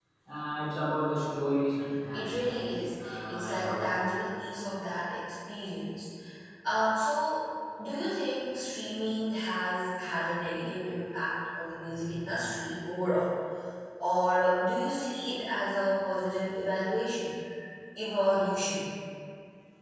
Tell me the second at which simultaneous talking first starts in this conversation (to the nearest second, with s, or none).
2 s